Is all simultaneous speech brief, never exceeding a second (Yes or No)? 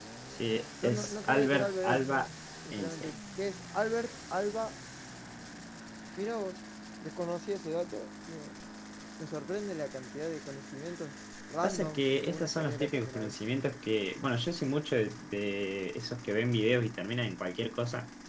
No